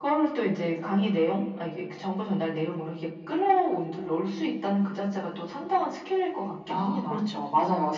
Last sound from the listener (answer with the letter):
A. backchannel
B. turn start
B